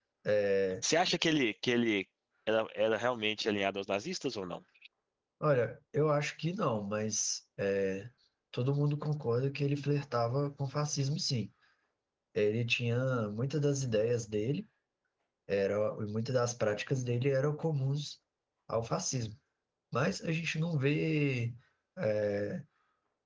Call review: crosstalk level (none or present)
none